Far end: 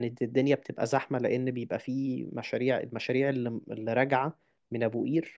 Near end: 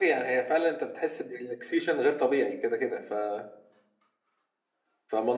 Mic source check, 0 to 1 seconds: user only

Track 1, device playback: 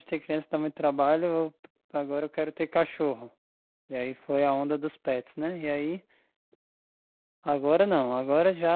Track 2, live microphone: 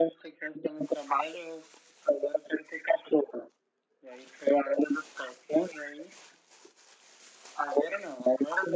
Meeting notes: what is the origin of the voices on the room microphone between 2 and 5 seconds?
echo only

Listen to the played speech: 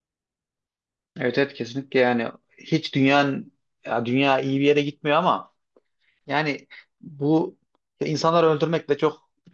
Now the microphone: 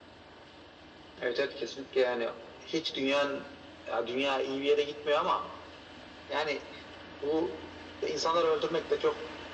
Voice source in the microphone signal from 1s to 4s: echo only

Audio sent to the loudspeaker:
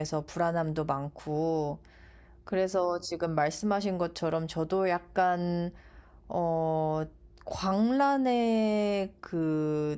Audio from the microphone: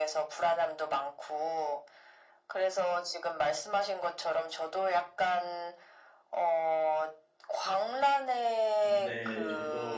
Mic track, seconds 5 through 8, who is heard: echo only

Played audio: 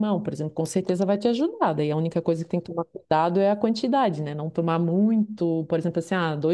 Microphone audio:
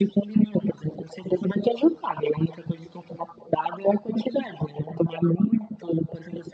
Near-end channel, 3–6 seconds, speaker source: echo only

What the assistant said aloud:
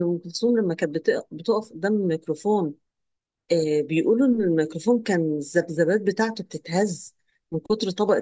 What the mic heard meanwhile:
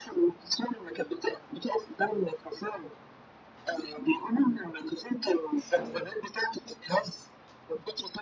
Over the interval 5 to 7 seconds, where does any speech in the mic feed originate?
echo only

